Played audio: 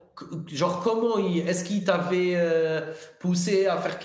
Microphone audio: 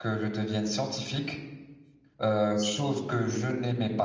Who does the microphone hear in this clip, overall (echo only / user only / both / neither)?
user only